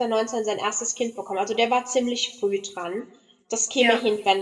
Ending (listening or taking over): listening